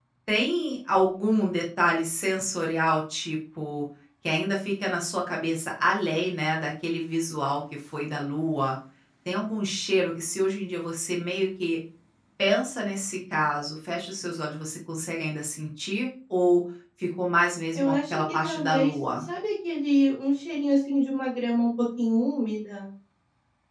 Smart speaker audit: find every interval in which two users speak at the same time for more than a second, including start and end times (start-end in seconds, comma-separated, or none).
17.7-19.3